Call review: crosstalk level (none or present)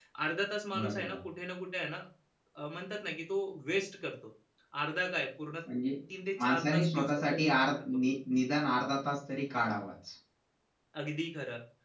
present